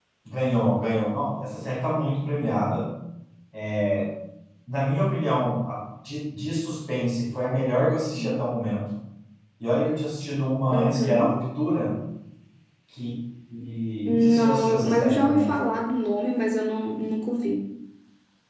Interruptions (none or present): present